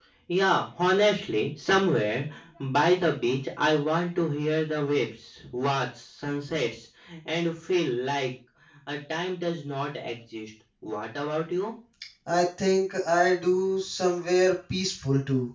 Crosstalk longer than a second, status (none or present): none